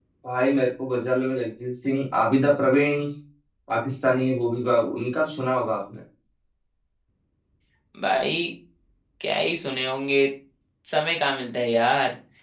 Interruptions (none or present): none